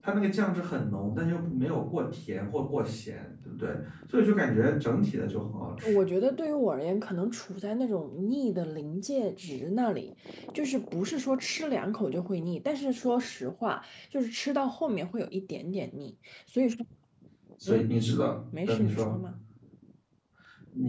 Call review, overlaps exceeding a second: none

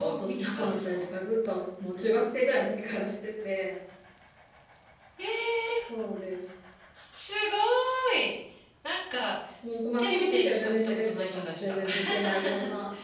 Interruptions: present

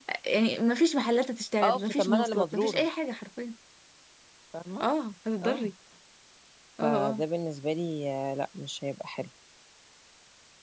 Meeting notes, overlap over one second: present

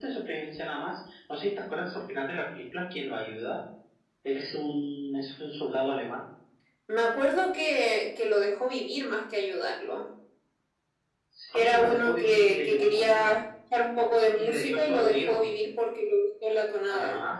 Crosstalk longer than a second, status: present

